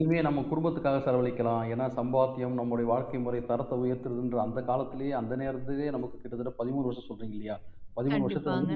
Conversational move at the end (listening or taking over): listening